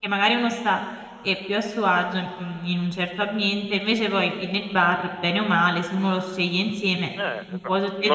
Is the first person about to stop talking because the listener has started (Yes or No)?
Yes